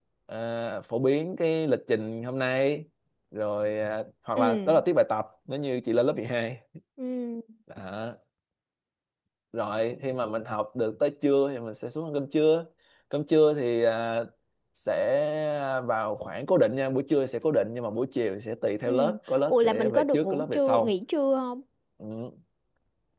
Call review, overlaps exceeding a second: present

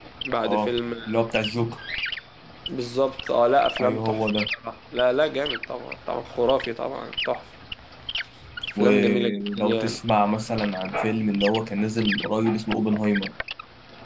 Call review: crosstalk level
present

